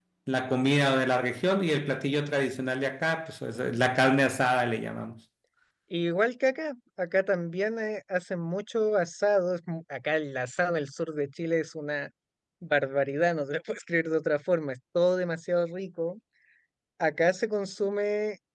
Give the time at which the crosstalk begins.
none

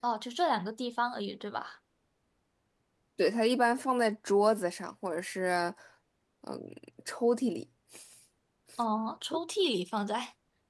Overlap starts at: none

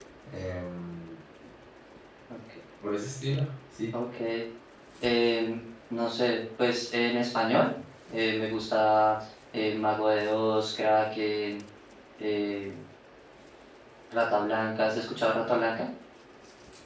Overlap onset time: none

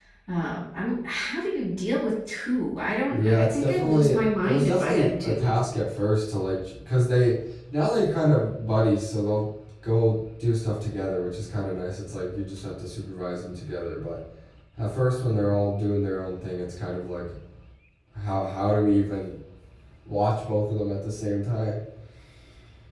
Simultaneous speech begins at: 3 s

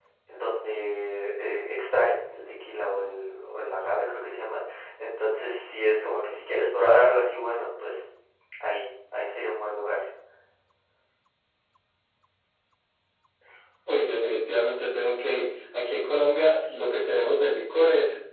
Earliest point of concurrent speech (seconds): none

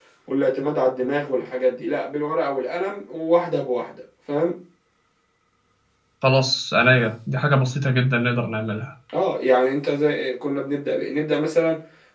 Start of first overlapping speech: none

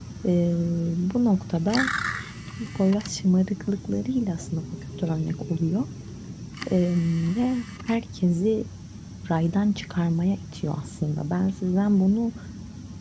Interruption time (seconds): none

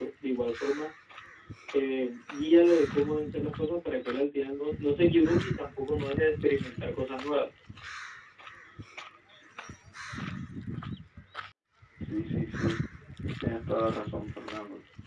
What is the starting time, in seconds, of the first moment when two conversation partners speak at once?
none

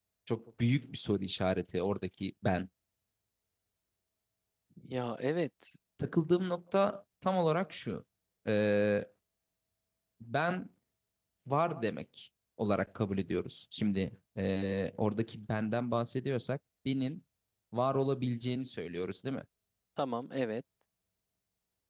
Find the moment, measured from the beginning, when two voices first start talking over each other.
none

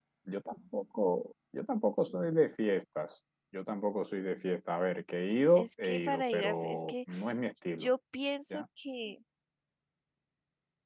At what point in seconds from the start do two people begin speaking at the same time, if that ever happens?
6 s

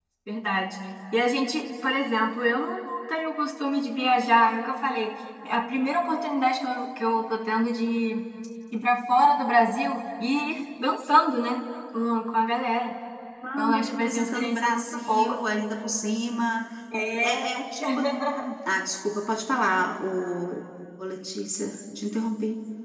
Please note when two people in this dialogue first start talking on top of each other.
14 s

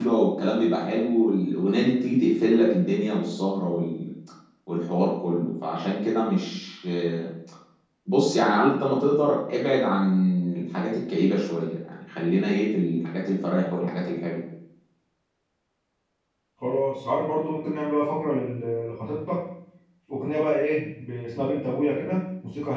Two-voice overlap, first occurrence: none

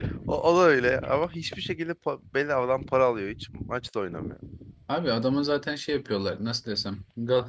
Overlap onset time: none

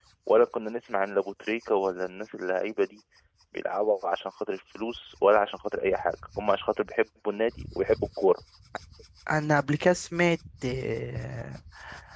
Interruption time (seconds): none

